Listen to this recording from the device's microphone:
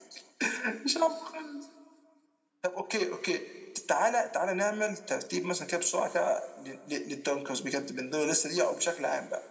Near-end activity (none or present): none